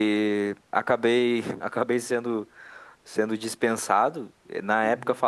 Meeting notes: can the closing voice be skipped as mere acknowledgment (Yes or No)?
Yes